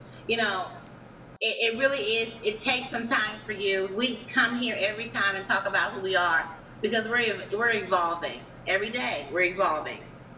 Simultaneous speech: No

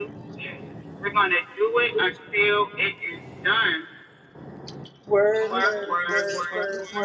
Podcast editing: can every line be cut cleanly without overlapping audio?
No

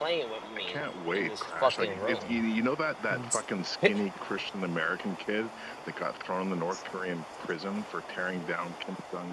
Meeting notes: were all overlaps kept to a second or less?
No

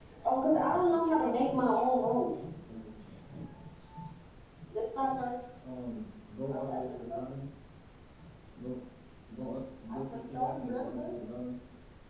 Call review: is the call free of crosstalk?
No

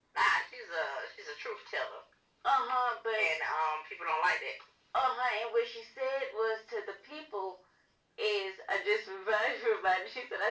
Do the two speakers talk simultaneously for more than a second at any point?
No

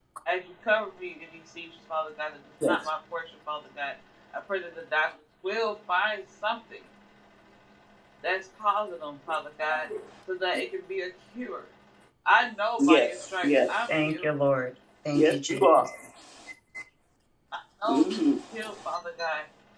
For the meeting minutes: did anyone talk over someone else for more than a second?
Yes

